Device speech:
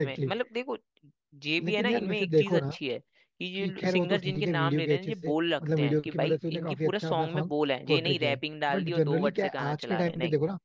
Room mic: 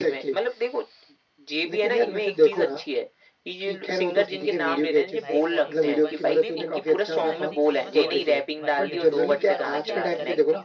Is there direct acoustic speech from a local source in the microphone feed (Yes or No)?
Yes